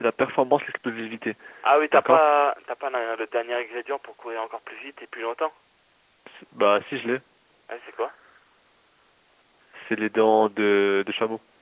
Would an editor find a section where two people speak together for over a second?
No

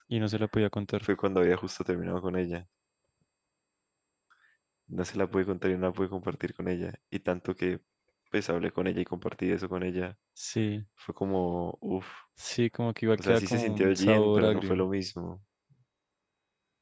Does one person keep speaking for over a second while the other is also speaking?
Yes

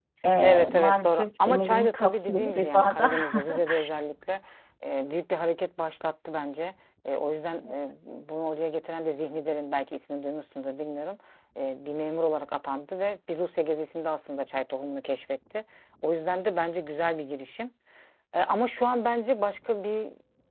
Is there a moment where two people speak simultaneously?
Yes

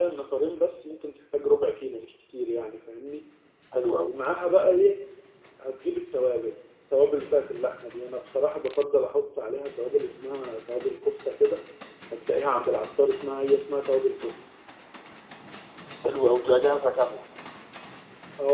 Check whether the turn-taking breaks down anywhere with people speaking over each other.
No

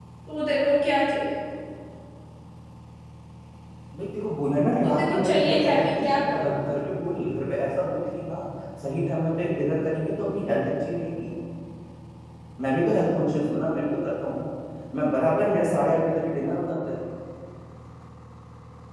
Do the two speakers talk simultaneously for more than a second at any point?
Yes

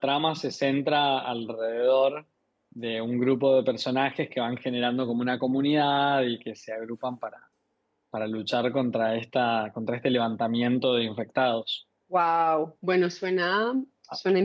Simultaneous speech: No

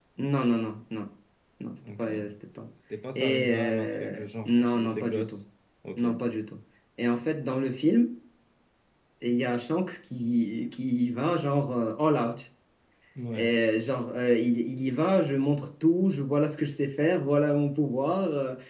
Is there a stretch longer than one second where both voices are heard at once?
Yes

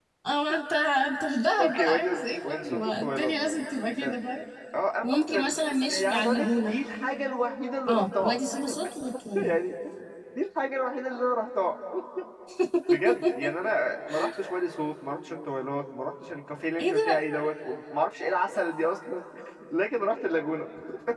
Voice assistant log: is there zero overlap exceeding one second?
No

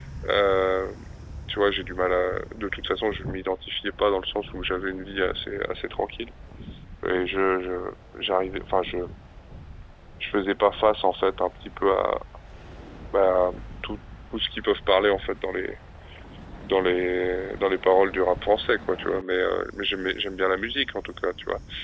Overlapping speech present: No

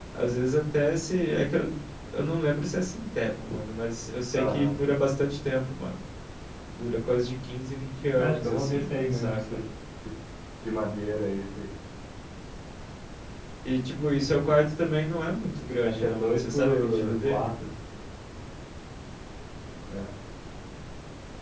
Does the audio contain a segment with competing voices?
Yes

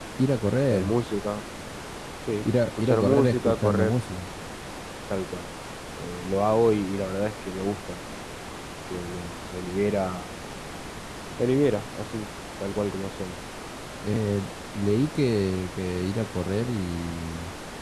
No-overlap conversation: No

